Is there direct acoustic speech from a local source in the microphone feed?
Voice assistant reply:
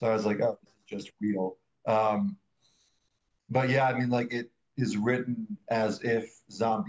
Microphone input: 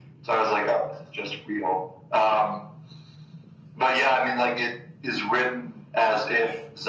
No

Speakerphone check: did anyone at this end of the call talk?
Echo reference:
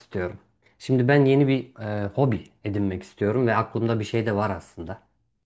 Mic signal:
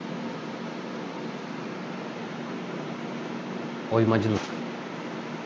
Yes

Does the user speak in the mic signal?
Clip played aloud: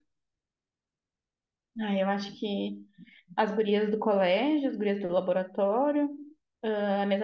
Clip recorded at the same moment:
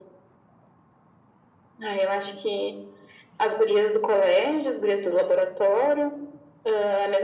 No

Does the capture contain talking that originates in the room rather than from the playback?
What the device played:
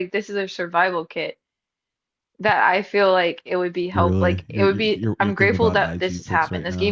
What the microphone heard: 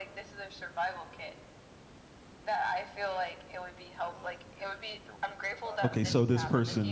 Yes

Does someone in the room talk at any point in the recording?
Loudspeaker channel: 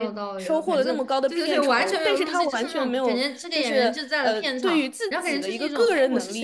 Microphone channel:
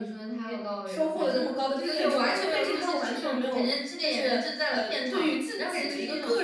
No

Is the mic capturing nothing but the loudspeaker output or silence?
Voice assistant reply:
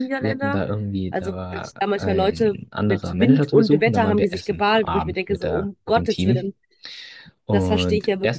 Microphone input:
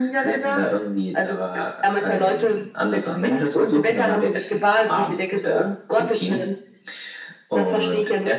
Yes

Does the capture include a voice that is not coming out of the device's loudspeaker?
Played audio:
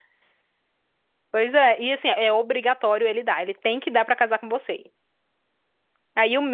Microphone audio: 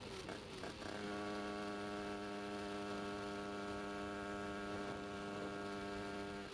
No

